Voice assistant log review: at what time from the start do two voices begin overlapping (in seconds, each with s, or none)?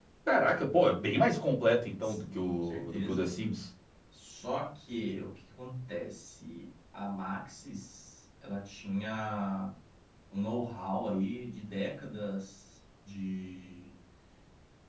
2.0 s